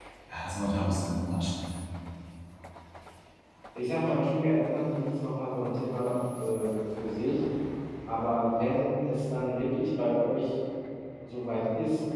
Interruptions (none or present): none